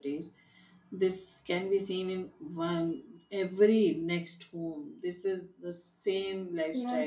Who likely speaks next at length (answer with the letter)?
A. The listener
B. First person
A